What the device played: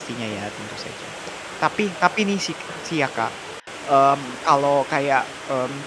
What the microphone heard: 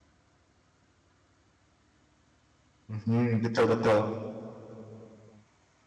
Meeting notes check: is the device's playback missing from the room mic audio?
Yes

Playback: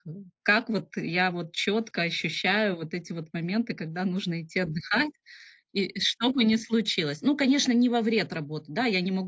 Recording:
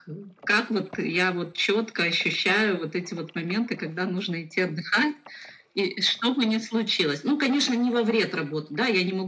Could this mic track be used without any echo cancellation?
No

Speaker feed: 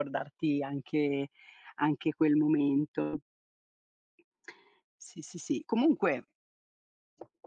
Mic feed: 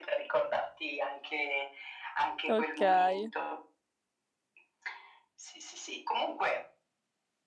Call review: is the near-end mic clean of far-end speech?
No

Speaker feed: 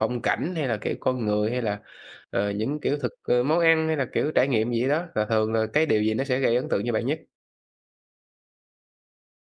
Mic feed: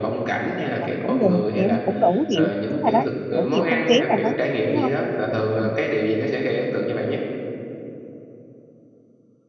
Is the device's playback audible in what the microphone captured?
Yes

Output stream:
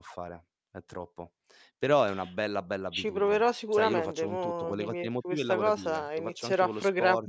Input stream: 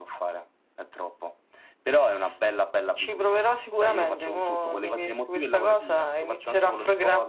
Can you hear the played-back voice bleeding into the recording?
Yes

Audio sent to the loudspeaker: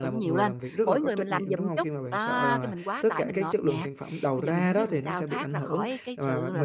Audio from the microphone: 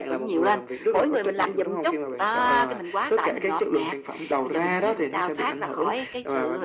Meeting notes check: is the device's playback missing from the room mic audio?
No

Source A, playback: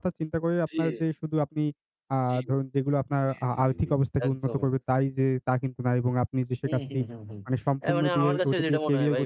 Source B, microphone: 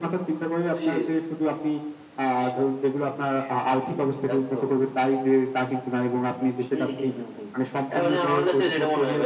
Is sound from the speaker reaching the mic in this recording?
Yes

